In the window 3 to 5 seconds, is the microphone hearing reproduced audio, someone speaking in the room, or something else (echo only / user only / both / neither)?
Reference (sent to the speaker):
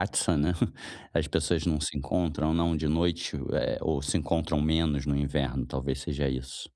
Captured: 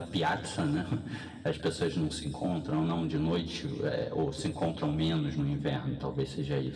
echo only